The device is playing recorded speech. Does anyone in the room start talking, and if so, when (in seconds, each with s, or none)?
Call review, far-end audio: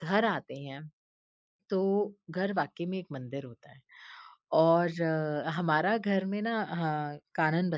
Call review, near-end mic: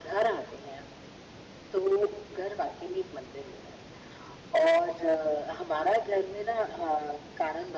none